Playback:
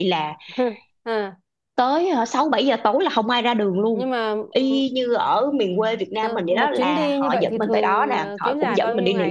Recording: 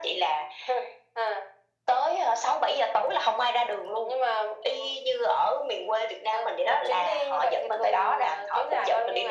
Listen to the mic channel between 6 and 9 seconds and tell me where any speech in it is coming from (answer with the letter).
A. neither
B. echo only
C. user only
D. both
B